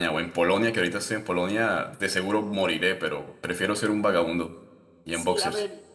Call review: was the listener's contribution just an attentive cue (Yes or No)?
No